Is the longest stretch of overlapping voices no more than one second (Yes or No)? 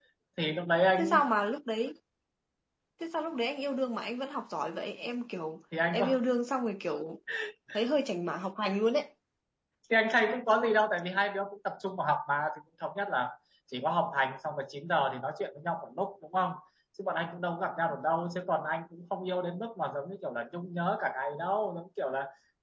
Yes